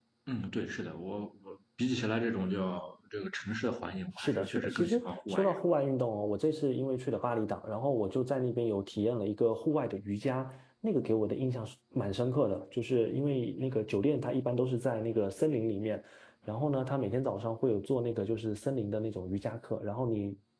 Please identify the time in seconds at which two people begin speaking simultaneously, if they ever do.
4.2 s

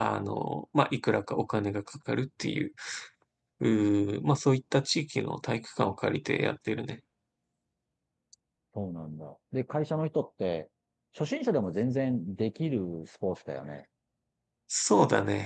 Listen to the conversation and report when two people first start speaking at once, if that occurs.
none

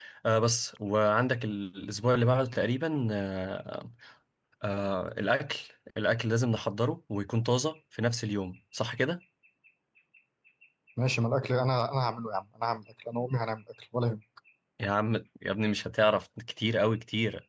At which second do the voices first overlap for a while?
none

